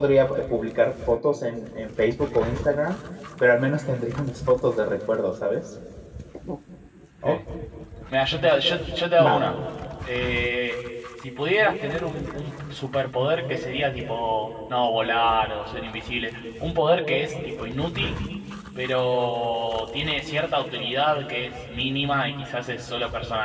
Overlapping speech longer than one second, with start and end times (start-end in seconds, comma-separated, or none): none